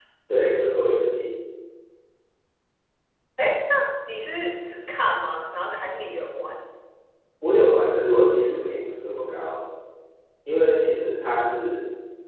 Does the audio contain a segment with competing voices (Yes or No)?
No